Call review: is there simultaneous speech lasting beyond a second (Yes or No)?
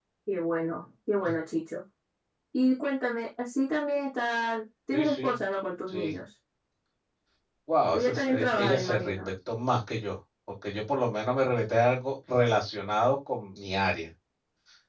Yes